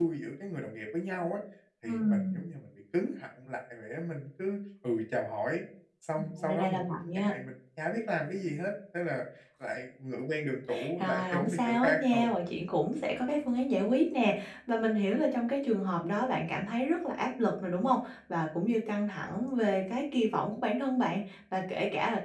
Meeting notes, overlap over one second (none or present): present